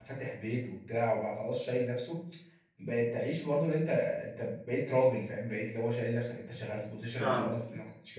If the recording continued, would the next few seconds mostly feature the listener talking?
No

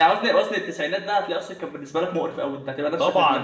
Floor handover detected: Yes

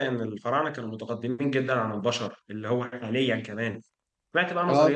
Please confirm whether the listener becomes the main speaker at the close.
No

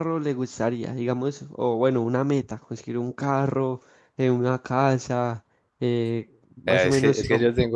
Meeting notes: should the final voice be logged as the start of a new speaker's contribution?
Yes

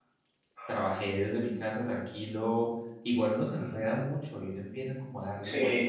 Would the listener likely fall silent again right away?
Yes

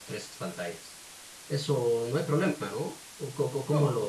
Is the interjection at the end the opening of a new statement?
Yes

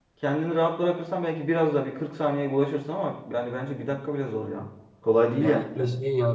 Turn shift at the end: Yes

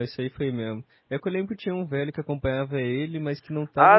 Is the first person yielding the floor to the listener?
Yes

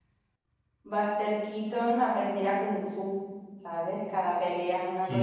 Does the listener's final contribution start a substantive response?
Yes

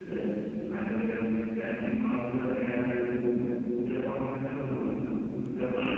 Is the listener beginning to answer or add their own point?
No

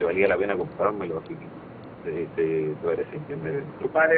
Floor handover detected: Yes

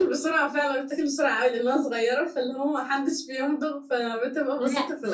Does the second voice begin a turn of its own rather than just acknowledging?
Yes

